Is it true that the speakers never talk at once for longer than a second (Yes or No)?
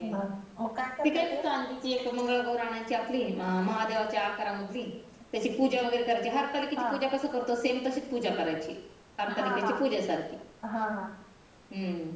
Yes